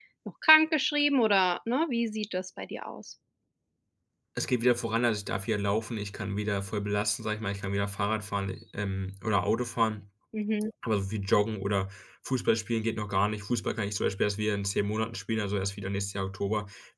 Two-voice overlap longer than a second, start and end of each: none

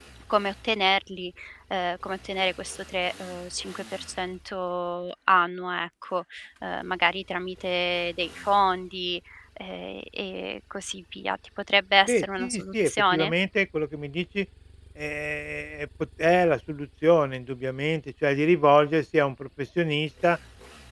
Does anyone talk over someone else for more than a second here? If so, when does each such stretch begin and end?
12.1-13.3

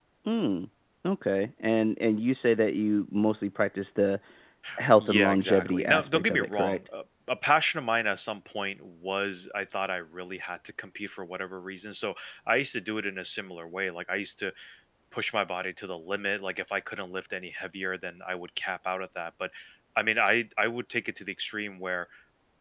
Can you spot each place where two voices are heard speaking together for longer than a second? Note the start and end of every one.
5.0-6.8

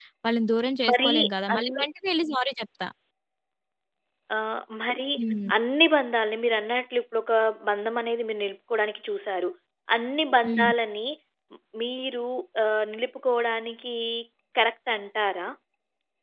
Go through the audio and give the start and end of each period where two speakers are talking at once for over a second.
none

